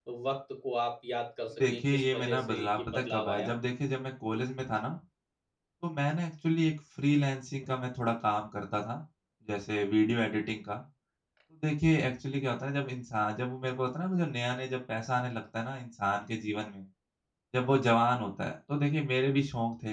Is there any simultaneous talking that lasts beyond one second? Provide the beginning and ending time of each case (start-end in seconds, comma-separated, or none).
1.7-3.5